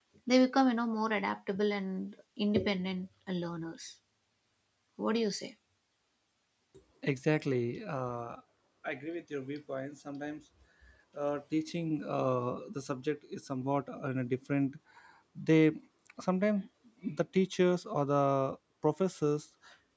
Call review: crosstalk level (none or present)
none